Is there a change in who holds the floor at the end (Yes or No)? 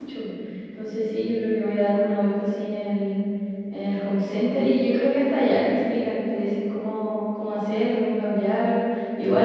No